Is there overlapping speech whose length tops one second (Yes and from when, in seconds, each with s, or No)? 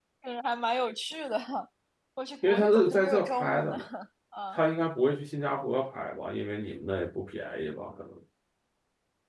Yes, from 2.4 s